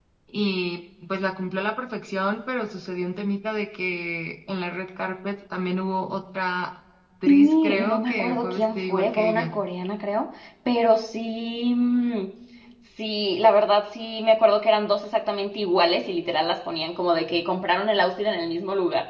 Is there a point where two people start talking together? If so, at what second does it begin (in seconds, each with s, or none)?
7.3 s